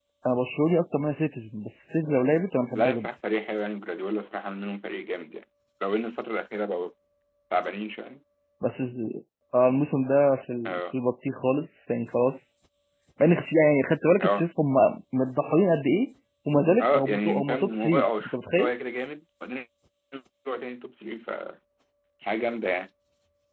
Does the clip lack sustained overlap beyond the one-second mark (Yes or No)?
No